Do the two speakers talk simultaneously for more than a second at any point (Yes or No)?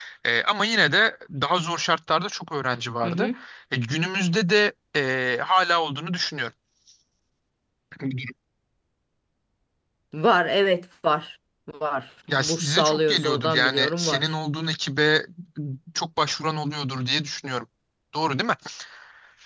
Yes